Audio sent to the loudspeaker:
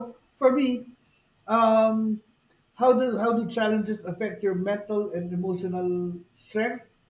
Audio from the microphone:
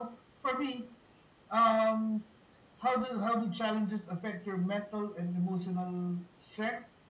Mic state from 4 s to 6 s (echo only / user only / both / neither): echo only